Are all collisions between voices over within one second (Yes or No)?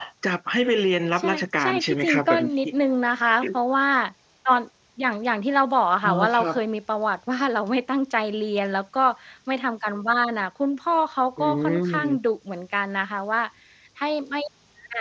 No